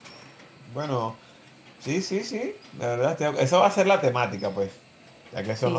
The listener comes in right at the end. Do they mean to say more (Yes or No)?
No